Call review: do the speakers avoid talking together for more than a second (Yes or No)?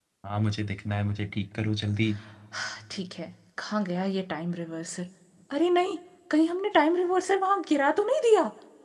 Yes